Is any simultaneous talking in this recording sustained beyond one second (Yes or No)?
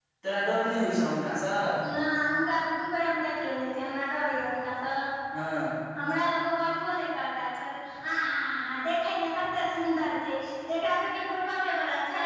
No